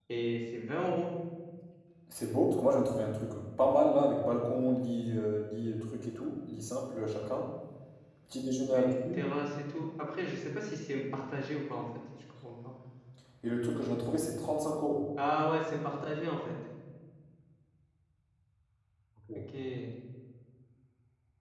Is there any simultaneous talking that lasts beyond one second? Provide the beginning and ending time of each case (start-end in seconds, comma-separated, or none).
none